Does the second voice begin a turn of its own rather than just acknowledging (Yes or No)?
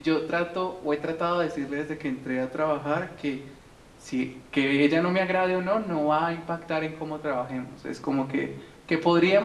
No